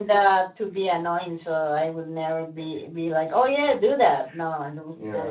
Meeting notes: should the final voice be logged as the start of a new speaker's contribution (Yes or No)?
Yes